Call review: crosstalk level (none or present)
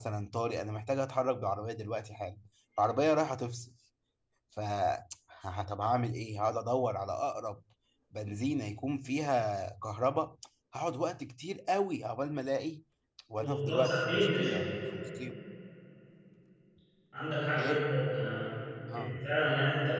present